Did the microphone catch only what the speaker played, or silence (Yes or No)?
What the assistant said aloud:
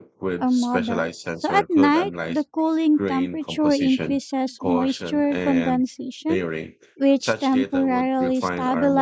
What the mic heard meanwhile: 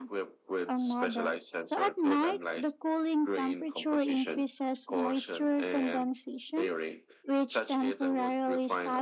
Yes